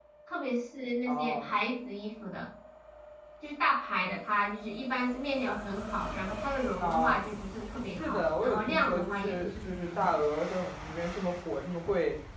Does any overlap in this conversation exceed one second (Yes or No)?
Yes